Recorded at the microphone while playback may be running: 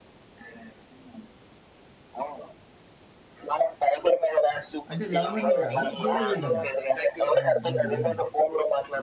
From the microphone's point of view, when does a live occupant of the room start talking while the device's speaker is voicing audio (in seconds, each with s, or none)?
4.9 s